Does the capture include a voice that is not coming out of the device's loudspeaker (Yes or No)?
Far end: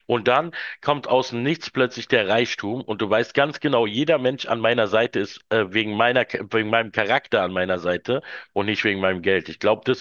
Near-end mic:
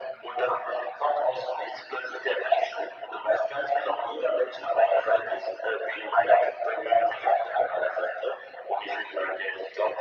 No